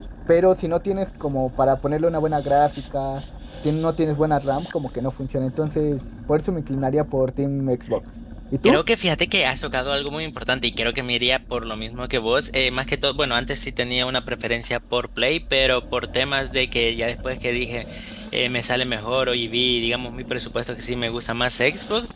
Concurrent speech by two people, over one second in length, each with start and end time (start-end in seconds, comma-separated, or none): none